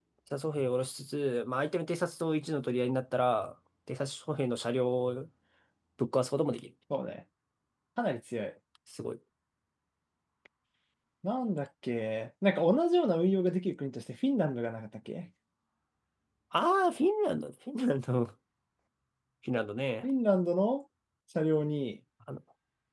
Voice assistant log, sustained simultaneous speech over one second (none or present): none